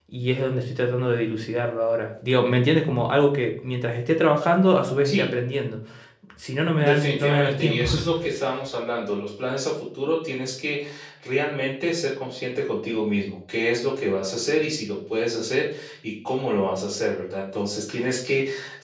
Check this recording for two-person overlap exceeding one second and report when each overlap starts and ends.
6.8-8.1

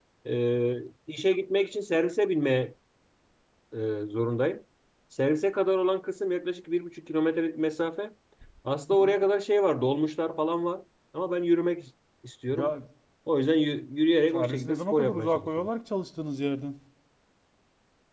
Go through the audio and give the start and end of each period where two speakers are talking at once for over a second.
14.3-15.7

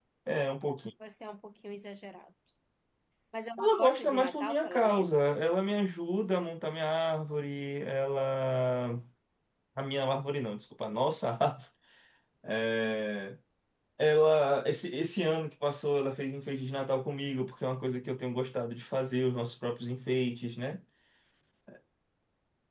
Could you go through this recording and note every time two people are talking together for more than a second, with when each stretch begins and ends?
3.6-5.4

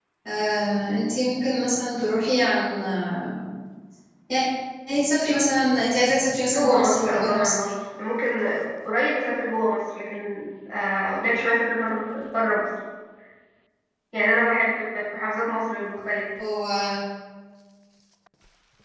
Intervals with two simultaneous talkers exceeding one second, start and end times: 6.5-7.7

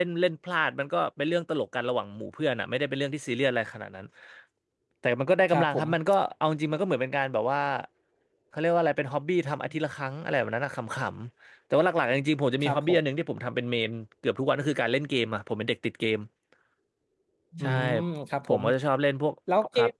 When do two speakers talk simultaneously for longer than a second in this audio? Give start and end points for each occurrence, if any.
none

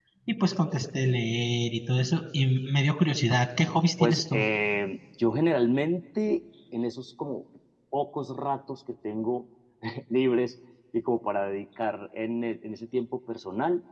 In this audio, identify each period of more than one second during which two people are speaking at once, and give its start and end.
none

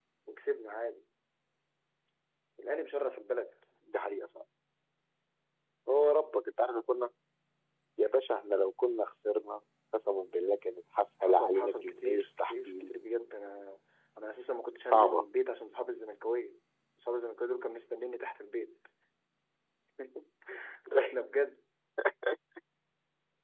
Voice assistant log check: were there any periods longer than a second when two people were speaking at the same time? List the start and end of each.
11.2-12.9

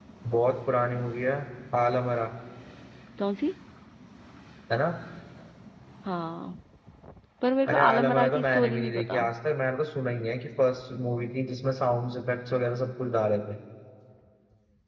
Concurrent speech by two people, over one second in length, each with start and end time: 7.7-9.2

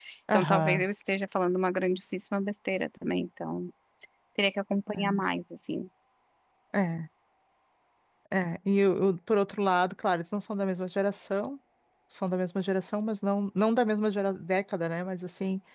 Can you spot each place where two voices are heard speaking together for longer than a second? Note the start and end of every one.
none

